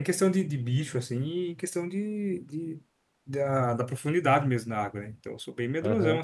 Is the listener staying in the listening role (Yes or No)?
No